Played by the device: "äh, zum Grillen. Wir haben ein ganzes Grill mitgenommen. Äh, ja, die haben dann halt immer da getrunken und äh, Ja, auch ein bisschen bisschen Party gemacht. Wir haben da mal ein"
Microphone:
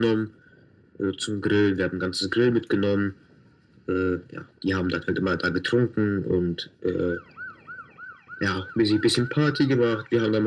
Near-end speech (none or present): none